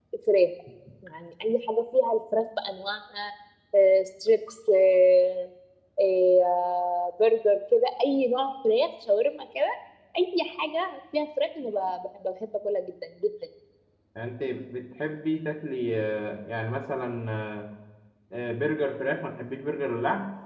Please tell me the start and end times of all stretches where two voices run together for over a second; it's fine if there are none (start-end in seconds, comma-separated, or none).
none